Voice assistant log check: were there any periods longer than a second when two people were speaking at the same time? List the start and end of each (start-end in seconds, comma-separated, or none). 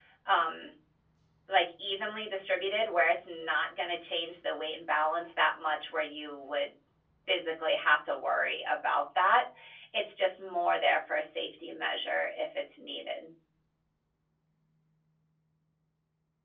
none